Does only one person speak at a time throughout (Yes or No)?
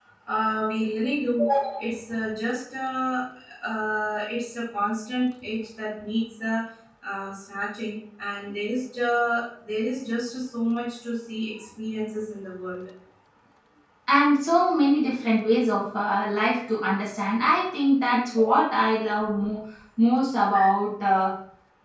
Yes